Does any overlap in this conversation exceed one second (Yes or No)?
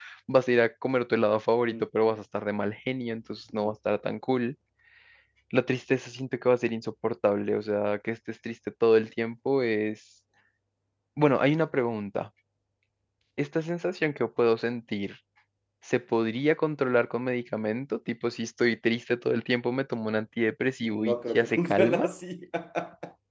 Yes